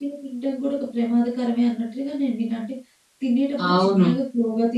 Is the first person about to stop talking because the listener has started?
No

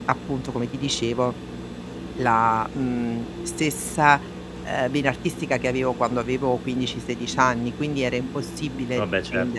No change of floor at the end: Yes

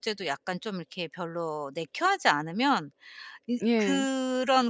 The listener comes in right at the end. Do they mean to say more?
No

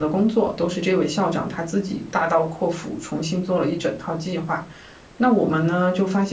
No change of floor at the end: Yes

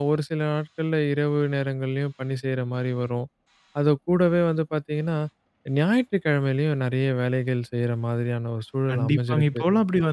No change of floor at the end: No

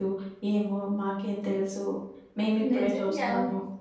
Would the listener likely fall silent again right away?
No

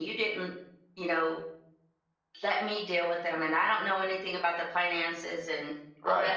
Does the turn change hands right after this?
No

